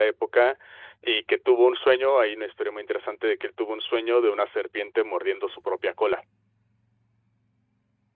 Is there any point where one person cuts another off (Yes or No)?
No